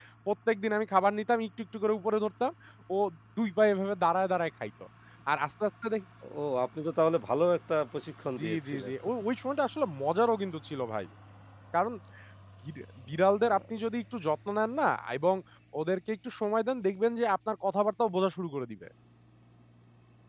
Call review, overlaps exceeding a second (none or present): none